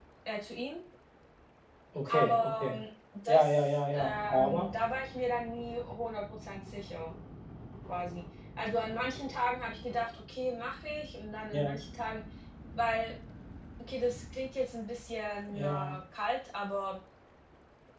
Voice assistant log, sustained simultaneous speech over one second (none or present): present